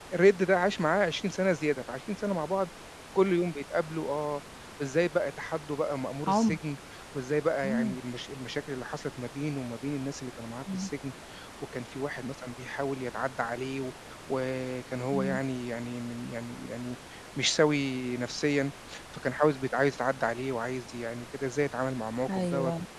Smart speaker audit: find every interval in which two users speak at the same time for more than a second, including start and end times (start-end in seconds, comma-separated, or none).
none